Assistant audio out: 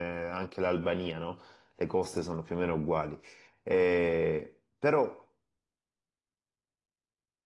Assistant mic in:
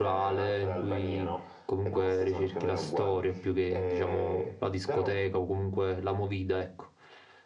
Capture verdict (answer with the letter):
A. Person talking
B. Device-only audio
A